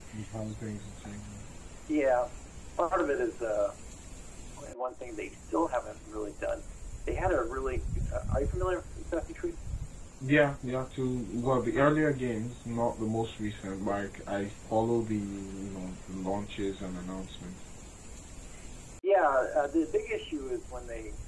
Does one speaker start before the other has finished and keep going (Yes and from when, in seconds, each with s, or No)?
No